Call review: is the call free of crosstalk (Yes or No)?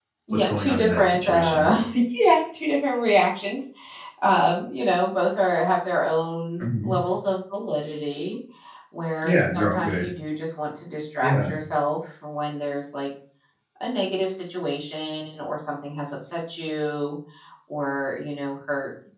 No